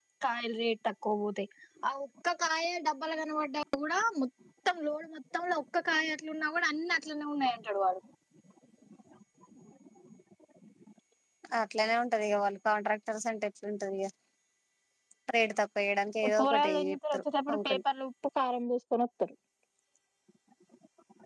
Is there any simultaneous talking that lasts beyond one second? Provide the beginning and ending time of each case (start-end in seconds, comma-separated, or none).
16.4-17.8